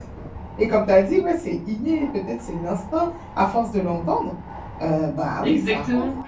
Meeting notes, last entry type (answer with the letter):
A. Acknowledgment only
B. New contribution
B